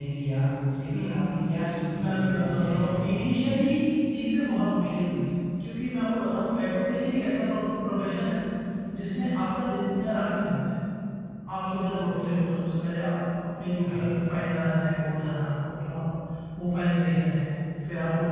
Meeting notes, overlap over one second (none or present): present